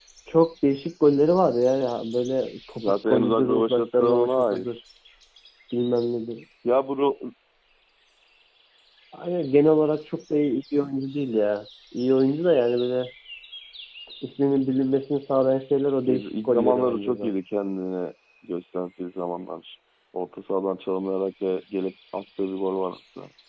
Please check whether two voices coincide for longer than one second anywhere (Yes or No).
Yes